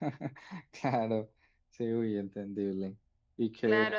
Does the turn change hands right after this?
Yes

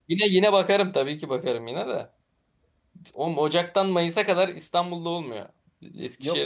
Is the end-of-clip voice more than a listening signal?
Yes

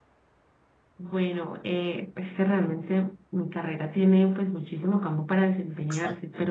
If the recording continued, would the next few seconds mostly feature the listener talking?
No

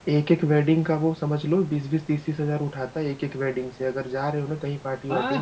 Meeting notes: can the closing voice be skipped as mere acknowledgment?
No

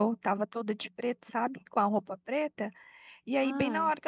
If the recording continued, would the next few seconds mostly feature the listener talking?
No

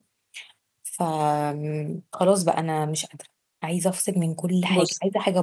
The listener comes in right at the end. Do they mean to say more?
No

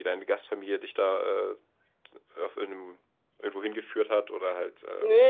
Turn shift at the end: Yes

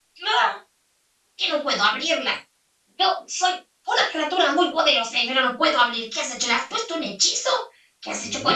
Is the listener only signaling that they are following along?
No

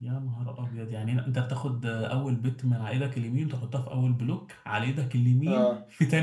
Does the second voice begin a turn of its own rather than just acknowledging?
Yes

